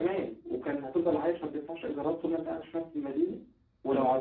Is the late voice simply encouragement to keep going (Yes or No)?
Yes